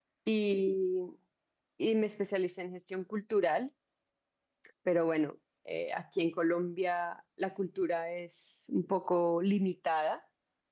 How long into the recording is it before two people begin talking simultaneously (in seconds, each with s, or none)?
none